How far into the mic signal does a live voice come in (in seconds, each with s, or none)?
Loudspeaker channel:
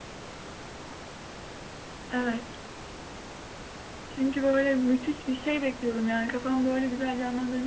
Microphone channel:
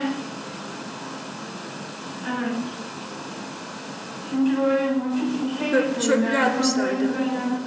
5.7 s